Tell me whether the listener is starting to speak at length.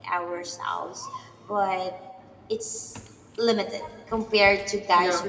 No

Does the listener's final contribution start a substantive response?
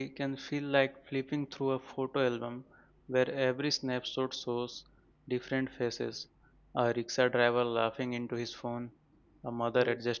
No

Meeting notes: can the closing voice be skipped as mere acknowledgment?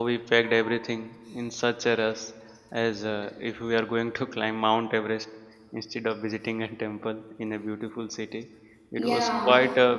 Yes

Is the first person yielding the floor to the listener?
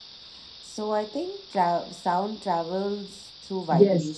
Yes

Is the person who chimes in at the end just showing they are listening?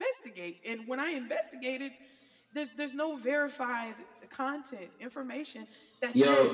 Yes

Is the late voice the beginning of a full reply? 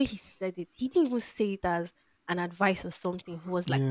Yes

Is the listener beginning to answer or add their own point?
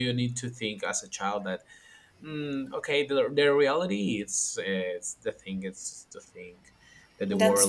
No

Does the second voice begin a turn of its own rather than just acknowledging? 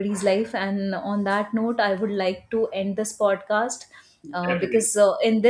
No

